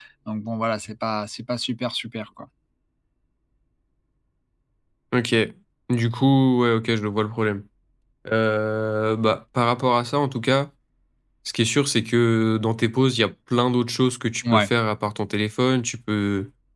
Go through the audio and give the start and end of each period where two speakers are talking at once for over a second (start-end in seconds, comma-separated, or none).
none